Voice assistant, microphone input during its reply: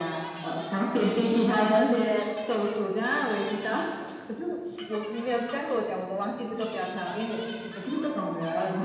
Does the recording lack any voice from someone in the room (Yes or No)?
Yes